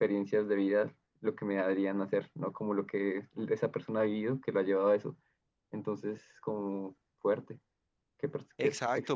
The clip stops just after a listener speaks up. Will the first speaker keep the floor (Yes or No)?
No